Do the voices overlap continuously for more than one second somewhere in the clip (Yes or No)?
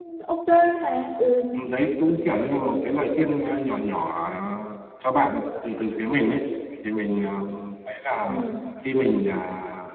No